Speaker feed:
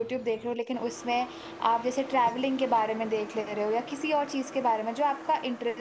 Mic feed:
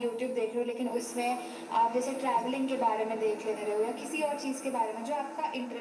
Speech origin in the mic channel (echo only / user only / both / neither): echo only